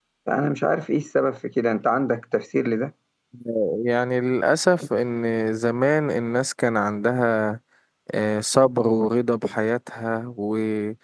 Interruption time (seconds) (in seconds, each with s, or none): none